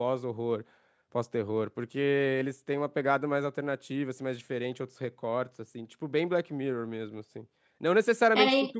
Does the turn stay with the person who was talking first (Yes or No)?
Yes